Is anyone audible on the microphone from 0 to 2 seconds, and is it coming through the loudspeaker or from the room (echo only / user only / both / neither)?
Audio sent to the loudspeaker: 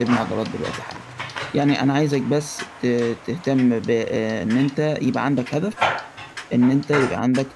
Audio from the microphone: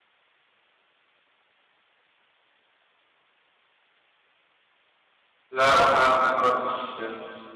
neither